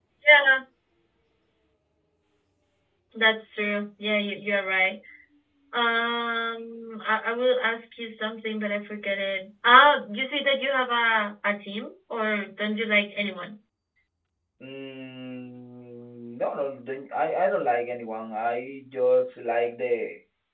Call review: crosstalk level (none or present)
none